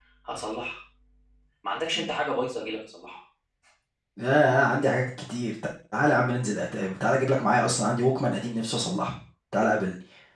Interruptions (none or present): none